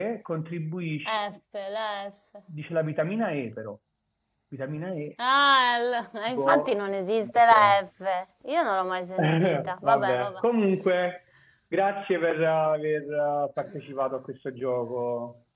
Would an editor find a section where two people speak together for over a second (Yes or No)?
Yes